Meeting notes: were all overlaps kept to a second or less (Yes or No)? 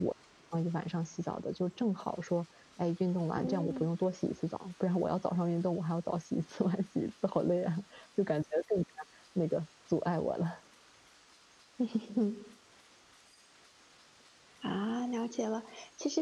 Yes